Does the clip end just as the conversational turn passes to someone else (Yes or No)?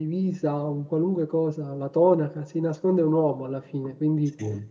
No